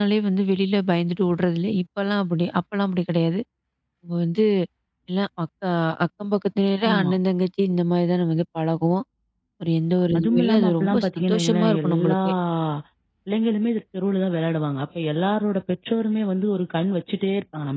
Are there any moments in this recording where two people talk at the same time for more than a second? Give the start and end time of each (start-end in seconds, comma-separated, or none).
10.2-12.2